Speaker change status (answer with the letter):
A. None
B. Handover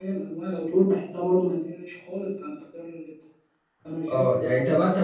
B